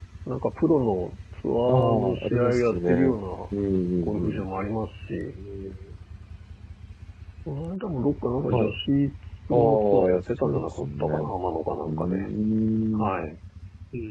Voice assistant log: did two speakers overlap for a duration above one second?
Yes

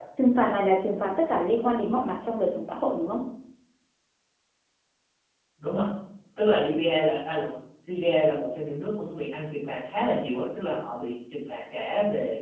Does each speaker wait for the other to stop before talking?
Yes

